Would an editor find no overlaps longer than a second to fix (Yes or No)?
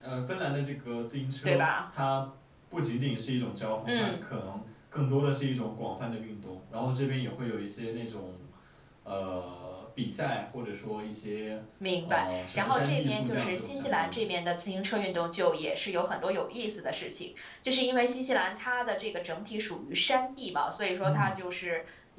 No